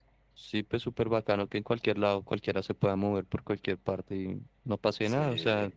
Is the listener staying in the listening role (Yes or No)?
Yes